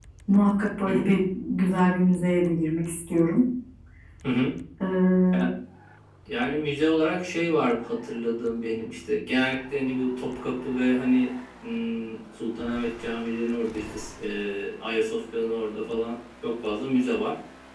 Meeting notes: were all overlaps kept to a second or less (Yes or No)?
Yes